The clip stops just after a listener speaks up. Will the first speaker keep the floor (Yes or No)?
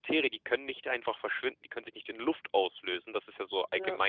Yes